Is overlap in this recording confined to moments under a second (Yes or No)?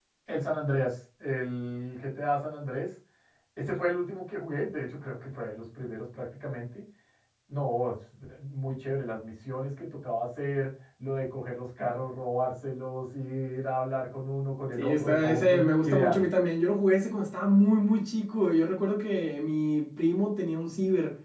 No